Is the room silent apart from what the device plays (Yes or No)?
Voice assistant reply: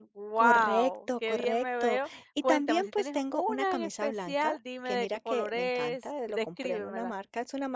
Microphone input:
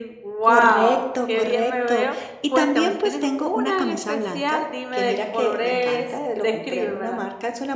Yes